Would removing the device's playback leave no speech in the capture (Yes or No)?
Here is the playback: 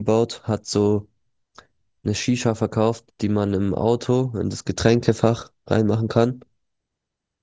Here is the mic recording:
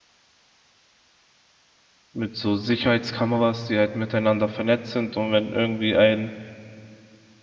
No